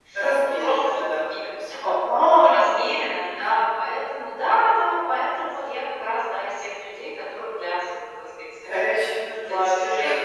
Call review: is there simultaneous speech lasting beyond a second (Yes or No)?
Yes